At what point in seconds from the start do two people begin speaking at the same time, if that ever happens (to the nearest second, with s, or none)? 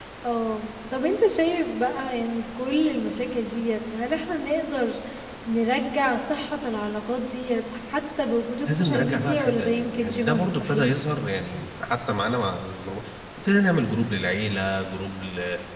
9 s